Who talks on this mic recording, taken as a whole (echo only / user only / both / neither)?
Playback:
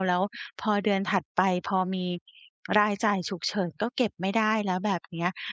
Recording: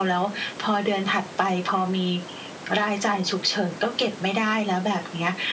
echo only